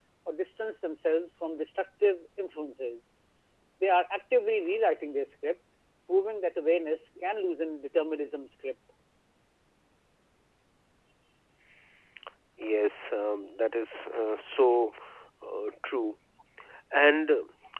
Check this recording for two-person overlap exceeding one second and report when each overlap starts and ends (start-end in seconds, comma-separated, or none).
none